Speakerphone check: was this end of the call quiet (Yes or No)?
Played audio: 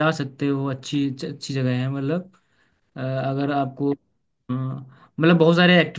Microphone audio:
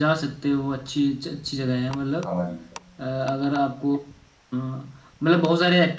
No